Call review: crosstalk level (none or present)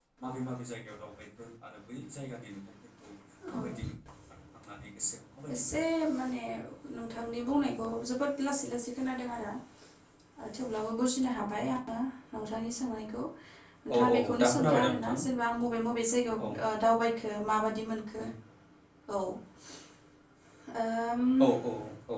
present